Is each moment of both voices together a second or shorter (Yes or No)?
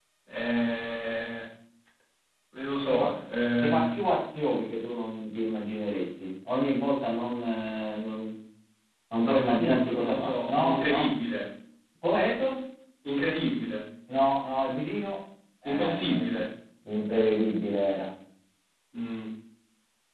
No